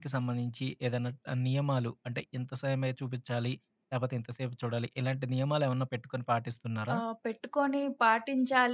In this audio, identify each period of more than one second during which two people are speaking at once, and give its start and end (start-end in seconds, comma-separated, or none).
none